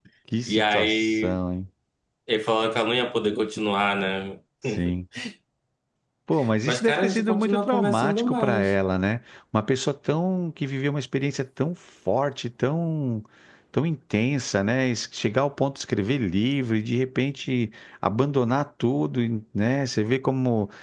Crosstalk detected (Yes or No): Yes